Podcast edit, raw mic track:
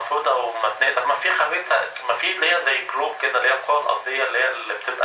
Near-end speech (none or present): none